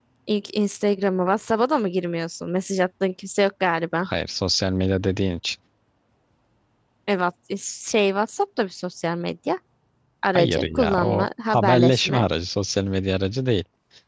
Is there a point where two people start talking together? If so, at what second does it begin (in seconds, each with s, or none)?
10.3 s